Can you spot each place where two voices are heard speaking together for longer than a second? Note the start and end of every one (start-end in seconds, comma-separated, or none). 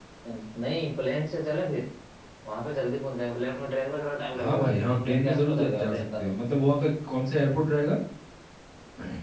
4.4-6.3